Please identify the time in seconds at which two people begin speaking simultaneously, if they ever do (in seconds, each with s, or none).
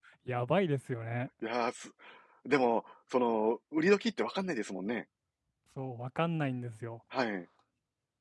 none